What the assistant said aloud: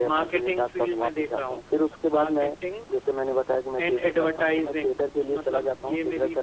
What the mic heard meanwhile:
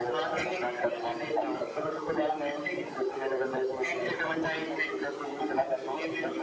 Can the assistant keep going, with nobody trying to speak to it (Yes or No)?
Yes